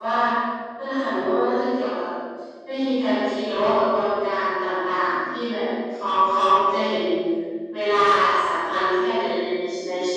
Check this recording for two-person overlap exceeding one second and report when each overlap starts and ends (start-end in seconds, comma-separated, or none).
none